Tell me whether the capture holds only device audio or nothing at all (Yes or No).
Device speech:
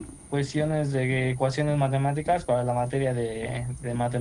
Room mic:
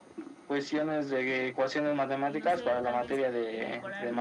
No